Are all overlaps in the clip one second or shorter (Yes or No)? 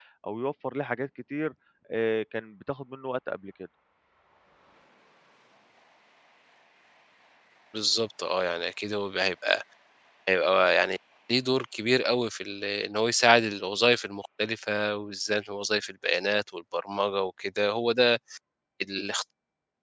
Yes